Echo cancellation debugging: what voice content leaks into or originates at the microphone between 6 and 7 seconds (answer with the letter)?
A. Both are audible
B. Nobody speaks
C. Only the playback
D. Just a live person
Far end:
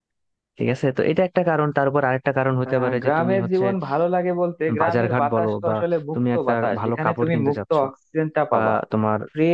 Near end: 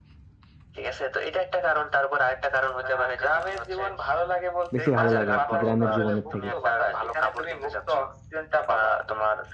A